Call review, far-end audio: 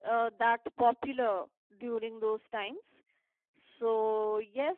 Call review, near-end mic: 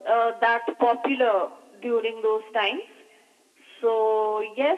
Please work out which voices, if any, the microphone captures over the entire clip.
echo only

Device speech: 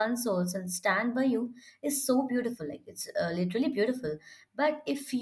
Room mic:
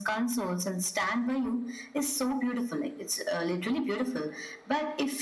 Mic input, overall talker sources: echo only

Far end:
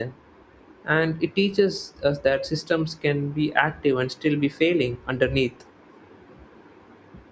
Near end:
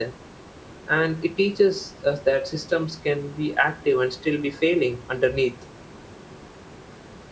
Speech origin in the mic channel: echo only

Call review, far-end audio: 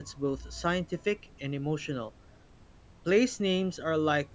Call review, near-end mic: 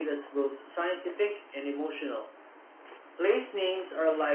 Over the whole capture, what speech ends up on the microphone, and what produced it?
echo only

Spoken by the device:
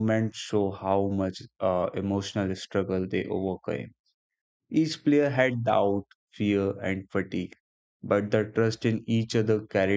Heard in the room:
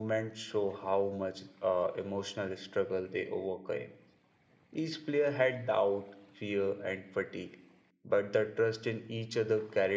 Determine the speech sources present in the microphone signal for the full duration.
echo only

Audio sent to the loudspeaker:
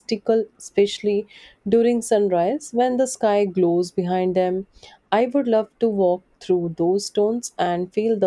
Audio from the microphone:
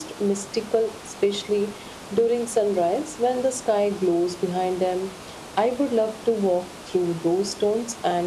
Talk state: echo only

